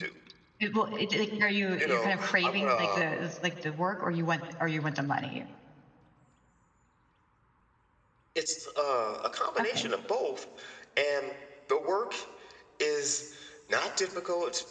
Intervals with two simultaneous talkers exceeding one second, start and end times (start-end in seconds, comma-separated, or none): 1.8-3.0